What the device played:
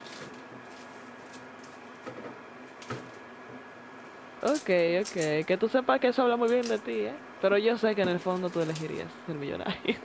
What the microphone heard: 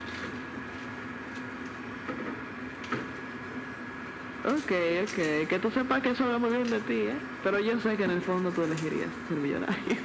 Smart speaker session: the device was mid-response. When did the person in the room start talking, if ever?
none

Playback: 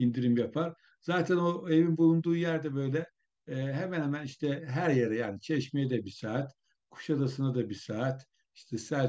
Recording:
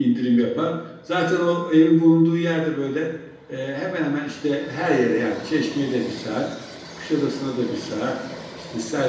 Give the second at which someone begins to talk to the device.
none

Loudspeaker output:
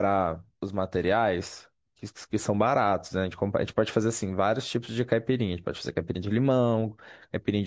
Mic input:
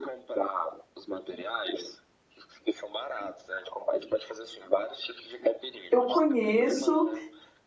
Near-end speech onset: 5.9 s

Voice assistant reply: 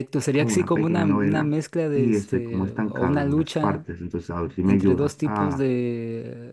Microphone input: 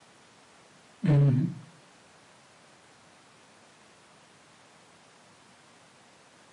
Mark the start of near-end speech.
1.0 s

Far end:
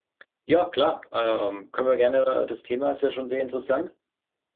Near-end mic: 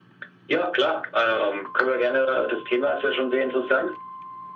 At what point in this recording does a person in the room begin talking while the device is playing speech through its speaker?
none

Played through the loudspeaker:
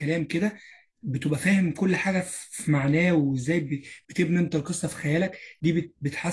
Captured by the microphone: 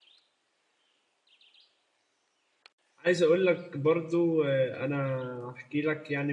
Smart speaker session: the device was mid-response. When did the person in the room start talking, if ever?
3.0 s

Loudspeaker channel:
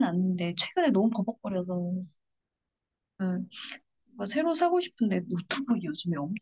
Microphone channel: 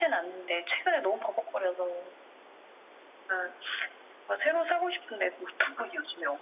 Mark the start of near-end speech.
none

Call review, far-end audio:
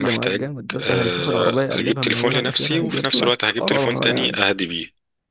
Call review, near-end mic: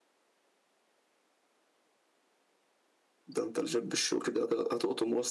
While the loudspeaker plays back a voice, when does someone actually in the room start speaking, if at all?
3.3 s

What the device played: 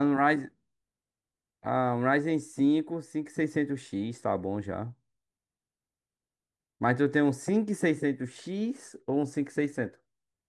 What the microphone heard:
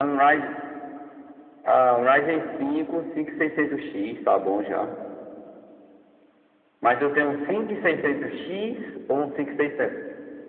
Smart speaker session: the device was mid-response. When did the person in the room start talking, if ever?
none

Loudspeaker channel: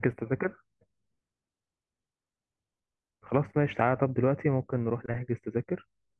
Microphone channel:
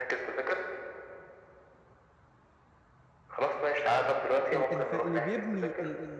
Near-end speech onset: 4.5 s

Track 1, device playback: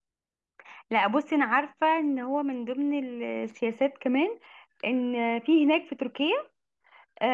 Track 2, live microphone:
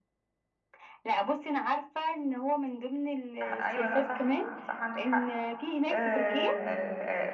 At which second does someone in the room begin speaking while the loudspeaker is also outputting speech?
3.4 s

